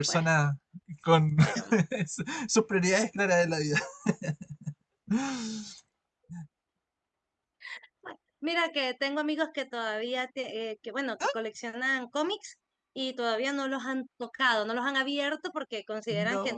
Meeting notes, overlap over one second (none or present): none